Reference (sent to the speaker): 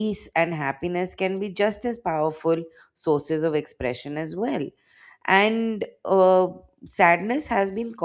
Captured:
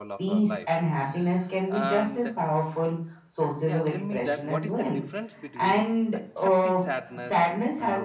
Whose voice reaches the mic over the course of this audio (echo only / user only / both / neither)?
both